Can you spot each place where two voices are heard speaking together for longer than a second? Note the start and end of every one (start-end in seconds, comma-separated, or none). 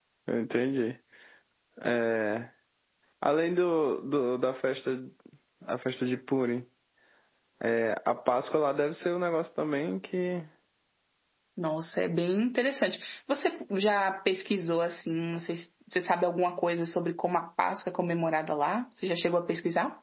none